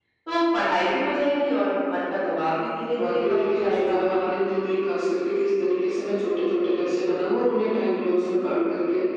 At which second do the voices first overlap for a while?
3 s

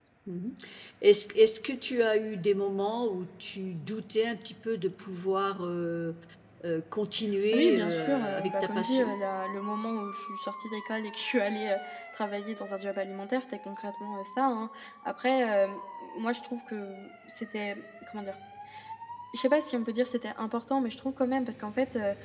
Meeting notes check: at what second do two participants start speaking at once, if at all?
8 s

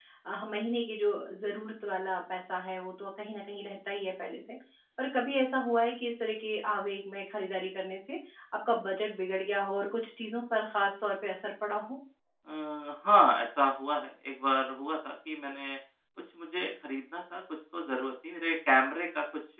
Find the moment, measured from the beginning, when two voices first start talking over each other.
none

